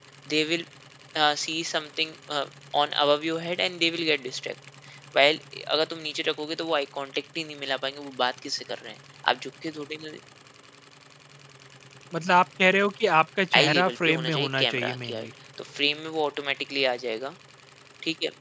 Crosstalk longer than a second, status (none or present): present